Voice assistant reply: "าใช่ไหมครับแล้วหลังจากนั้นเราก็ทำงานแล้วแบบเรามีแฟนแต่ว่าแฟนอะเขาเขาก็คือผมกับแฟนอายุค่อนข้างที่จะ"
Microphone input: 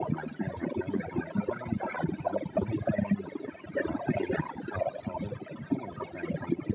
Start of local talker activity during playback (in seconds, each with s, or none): none